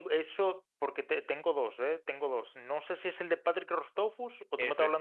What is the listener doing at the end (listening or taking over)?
listening